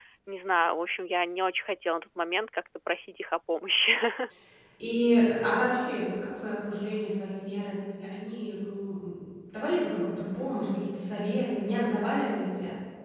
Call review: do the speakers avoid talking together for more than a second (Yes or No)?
Yes